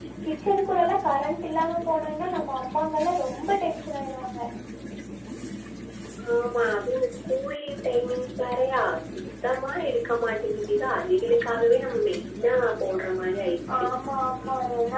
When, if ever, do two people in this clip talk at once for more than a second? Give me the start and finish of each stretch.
none

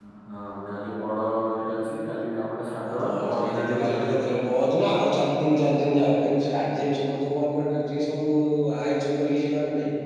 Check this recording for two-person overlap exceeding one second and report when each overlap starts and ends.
2.9-4.4

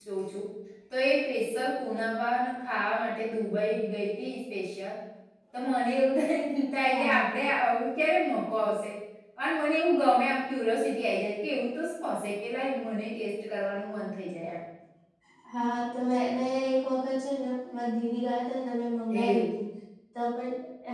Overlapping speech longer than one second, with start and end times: none

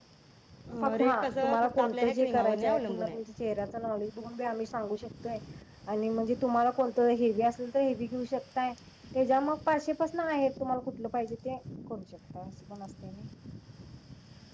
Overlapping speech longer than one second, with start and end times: 1.0-3.2

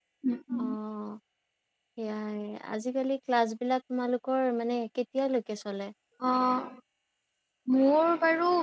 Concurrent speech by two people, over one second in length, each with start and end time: none

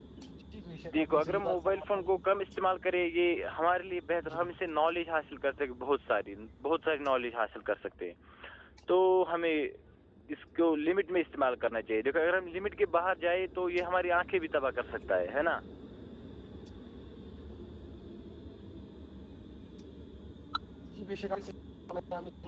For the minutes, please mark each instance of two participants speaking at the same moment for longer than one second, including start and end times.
0.9-2.1

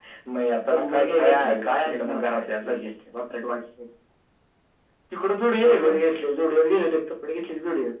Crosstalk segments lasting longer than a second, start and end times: 0.7-2.4

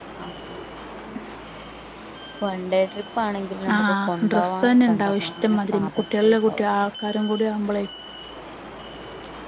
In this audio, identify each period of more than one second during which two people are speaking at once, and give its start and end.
3.8-6.6

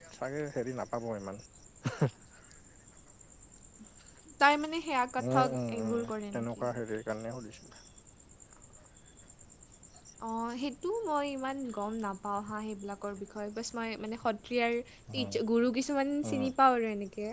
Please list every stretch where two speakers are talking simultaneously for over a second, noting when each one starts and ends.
5.2-6.7

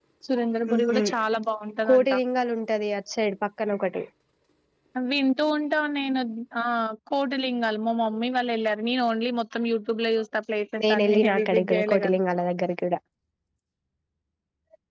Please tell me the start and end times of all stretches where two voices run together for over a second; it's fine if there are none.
10.8-12.2

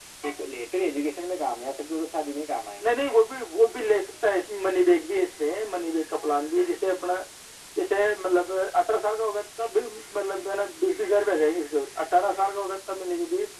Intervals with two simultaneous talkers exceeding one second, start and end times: none

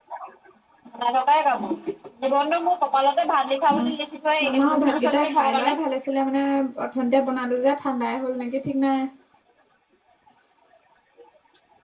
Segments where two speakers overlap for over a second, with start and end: 4.5-5.8

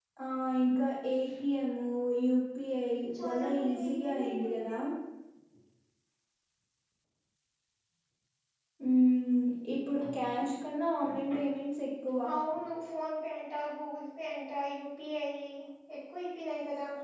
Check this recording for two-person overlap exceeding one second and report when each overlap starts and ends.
3.2-4.7

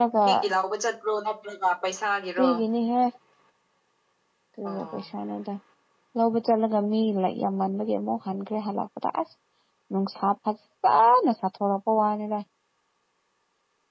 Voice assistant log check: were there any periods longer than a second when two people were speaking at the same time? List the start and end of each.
none

